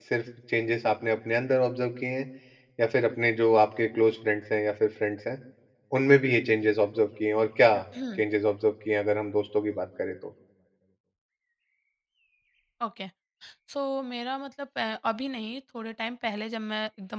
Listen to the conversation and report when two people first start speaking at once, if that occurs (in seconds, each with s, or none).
none